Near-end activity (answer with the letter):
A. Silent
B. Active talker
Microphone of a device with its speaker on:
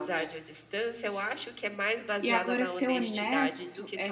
B